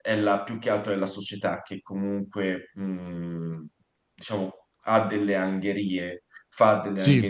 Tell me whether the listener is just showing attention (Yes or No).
Yes